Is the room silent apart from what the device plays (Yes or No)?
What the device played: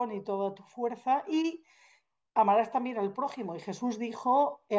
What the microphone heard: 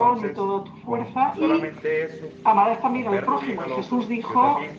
No